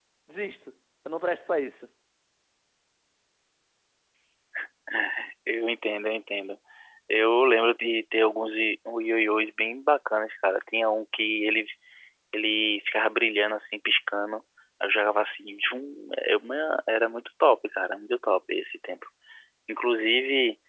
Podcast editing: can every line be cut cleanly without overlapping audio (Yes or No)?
Yes